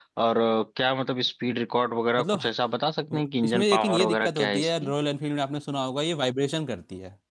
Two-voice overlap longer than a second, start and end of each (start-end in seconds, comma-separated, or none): 3.1-4.9